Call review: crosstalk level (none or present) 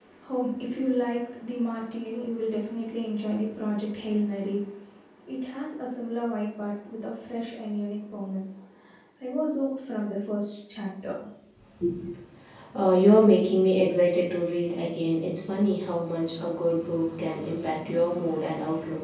none